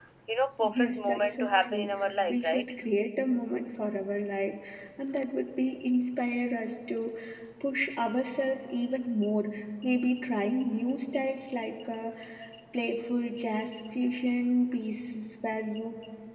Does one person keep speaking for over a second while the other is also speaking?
Yes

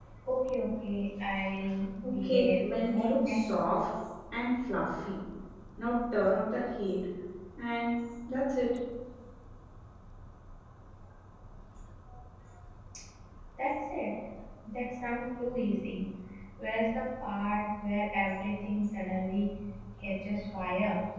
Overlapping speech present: Yes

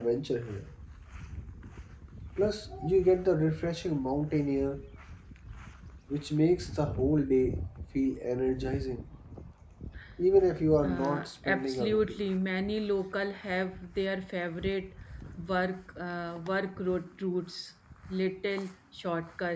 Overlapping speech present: Yes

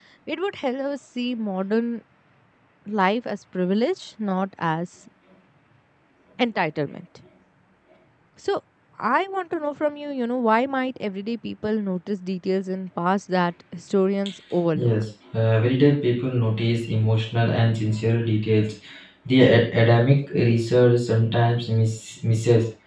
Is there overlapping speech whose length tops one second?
No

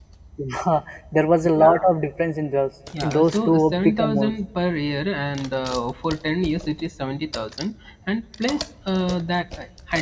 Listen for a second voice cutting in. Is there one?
Yes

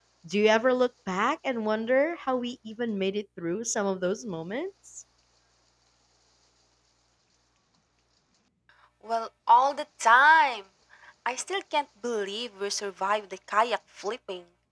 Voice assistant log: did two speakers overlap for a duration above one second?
No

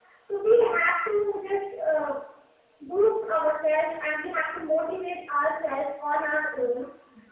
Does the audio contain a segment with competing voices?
No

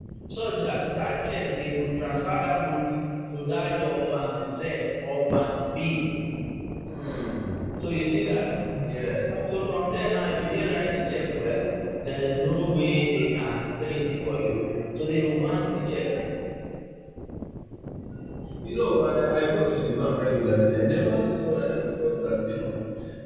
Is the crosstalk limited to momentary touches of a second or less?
Yes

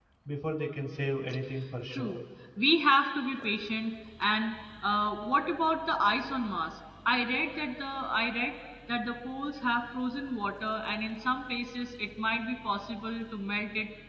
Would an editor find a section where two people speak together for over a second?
No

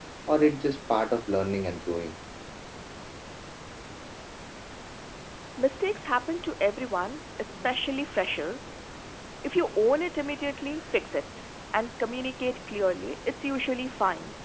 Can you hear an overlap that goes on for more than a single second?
No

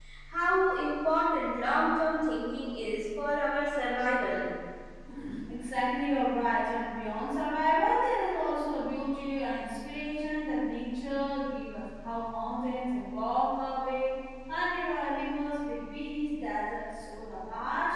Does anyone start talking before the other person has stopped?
No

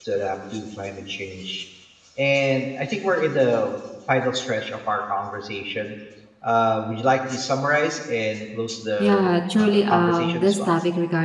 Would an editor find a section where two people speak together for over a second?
Yes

